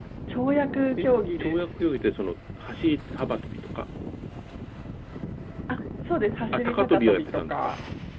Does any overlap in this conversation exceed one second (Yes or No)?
Yes